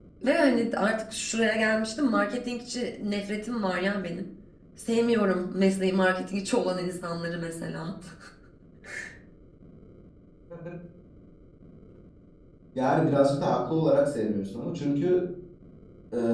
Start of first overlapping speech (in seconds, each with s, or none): none